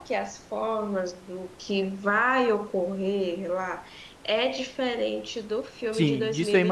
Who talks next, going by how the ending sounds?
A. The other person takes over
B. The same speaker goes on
A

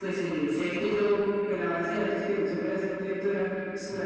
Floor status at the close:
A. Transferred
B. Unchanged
B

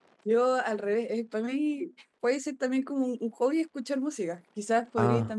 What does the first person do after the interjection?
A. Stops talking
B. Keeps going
B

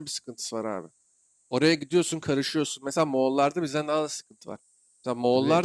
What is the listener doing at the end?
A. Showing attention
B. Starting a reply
A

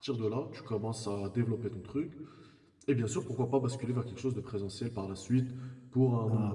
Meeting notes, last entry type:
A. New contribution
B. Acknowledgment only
B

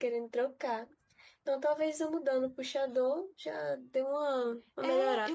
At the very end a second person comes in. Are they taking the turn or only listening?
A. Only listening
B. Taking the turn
B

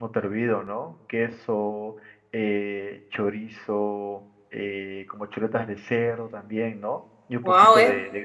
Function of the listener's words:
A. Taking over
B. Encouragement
A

